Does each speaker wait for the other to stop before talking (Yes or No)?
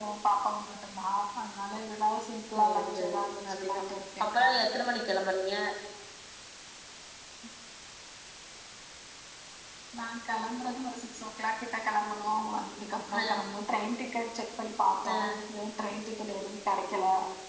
No